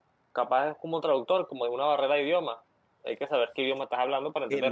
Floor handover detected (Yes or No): Yes